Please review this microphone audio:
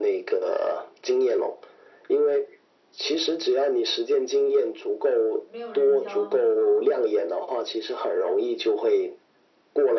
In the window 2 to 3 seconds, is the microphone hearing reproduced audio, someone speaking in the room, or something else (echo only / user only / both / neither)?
echo only